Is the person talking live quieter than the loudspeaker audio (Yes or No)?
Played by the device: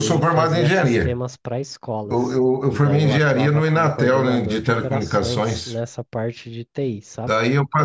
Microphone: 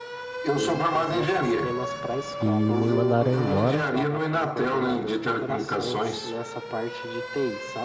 No